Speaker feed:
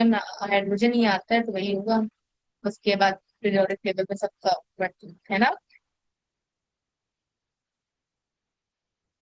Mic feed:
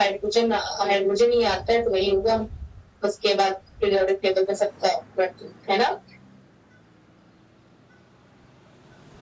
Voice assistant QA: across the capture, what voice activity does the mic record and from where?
echo only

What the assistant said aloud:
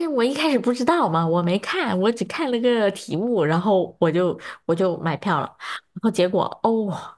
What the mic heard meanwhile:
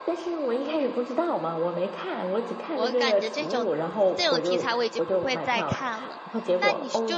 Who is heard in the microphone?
both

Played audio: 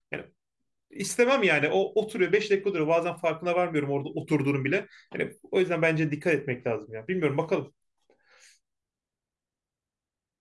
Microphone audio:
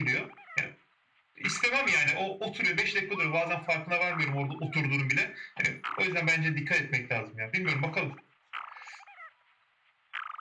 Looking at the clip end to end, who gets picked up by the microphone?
echo only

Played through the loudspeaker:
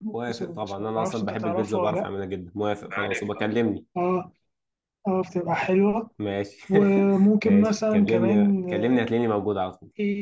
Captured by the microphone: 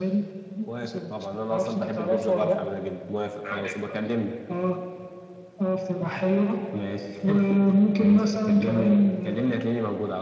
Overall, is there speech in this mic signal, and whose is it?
echo only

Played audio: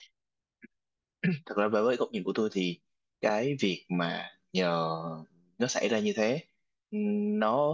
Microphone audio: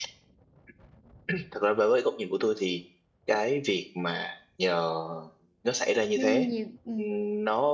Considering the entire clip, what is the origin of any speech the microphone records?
both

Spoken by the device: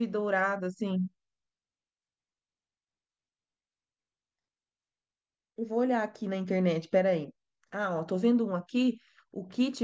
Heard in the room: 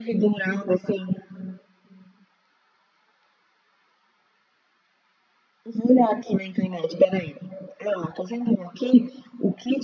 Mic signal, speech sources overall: echo only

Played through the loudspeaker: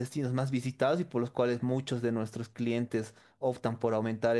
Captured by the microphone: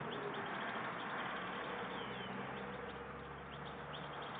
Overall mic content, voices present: neither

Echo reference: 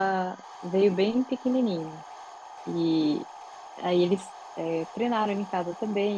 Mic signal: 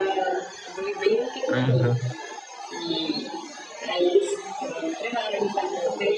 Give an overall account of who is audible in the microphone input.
both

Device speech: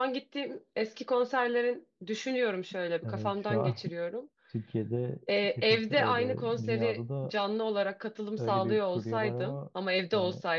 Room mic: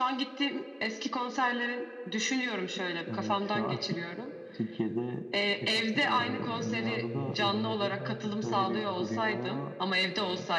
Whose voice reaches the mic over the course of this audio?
both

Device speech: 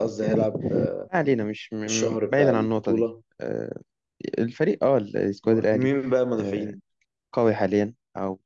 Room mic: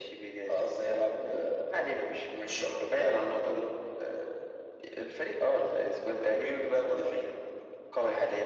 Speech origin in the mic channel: echo only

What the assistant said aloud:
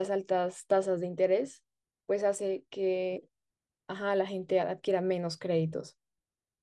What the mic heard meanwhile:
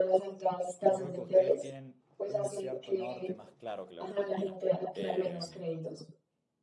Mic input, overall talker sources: both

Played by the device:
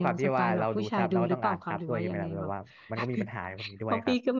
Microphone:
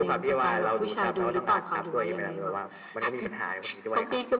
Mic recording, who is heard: echo only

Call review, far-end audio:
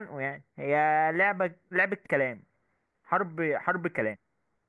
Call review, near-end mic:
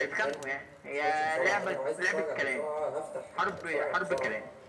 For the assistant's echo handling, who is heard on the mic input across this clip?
both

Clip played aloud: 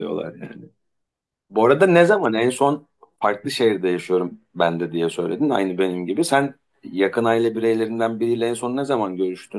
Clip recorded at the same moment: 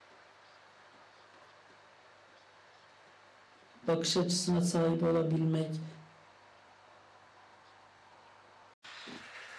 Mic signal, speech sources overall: user only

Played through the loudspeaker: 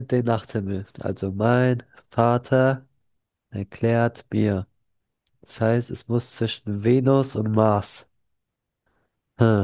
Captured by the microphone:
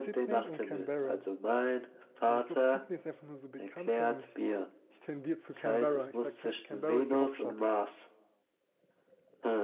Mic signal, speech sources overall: both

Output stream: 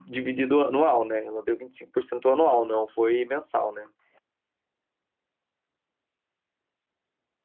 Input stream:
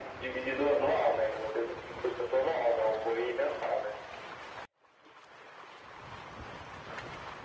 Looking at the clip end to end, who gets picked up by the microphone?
echo only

